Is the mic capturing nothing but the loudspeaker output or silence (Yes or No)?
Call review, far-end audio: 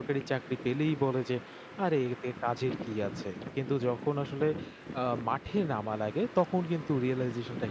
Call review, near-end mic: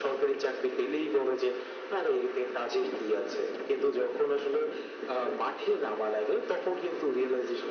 Yes